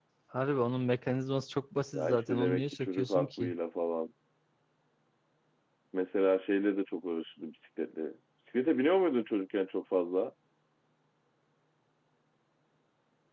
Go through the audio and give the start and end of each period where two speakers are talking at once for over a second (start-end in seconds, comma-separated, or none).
1.9-3.5